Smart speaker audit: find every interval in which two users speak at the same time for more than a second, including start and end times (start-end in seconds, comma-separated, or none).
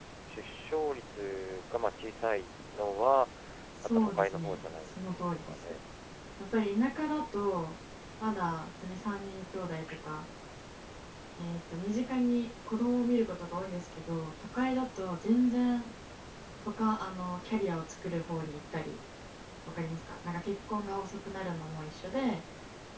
3.8-5.6